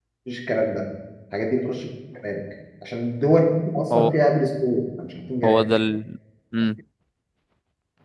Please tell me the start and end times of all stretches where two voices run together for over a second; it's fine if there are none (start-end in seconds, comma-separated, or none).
none